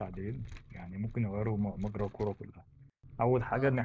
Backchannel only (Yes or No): Yes